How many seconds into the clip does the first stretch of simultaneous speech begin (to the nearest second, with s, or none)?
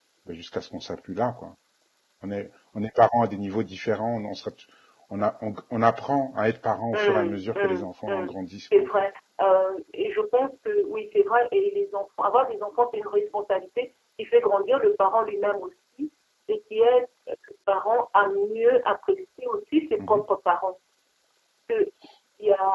7 s